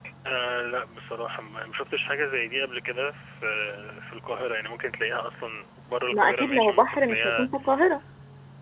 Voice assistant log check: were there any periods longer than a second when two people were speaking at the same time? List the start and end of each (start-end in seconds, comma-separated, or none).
6.1-7.5